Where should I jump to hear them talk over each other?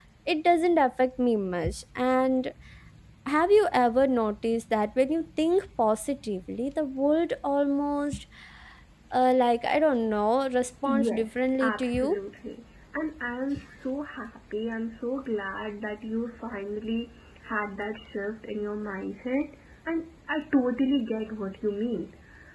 10.8 s

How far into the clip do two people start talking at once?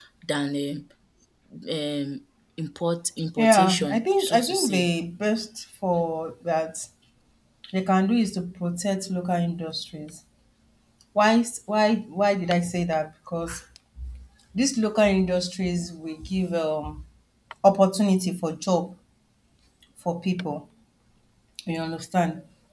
3.4 s

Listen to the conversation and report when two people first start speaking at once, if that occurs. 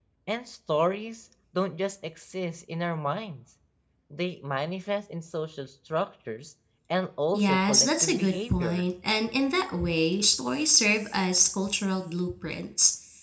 7.3 s

